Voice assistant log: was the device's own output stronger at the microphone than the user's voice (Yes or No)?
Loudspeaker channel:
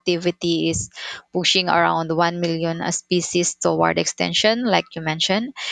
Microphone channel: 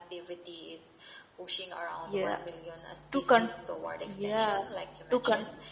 No